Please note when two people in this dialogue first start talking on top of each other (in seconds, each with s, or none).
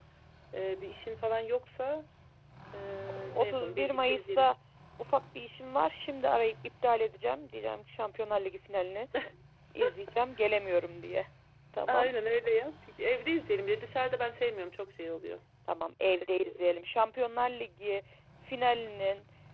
3.1 s